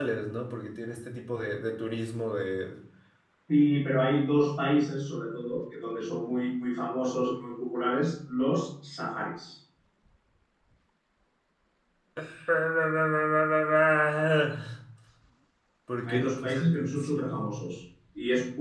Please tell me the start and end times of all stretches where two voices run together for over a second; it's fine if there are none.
16.1-17.5

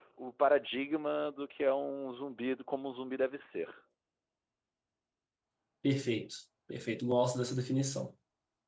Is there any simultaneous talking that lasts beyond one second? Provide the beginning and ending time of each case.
none

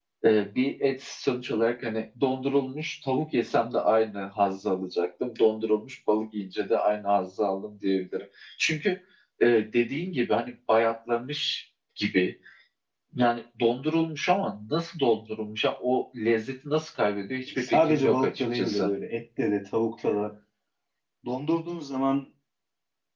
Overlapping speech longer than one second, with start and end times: 17.6-18.9

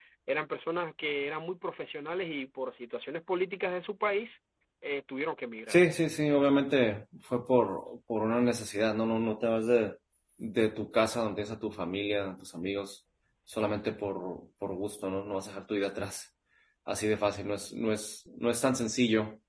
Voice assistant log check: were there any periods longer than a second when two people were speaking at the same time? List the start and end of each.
none

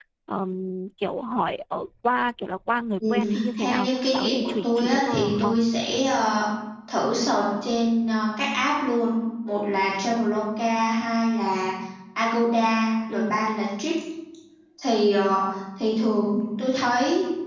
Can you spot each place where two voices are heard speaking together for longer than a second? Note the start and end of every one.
3.6-5.6

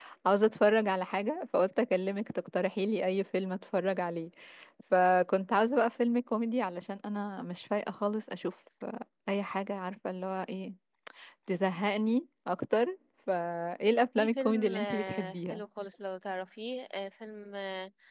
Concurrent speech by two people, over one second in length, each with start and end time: 14.2-15.6

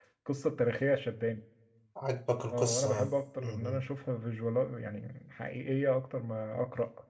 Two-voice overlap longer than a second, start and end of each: 2.5-3.8

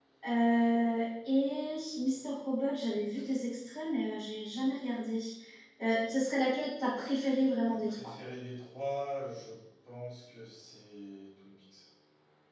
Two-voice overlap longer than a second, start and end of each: none

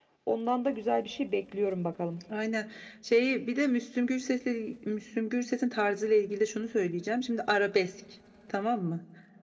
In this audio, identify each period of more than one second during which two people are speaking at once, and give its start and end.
none

